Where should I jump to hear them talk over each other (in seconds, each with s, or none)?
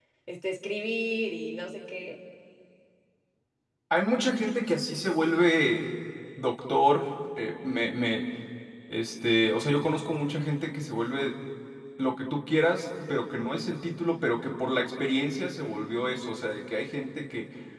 none